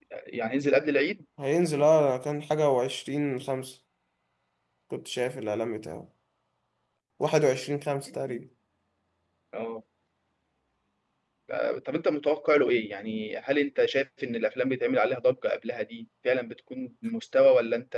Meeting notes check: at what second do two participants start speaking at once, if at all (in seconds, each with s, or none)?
none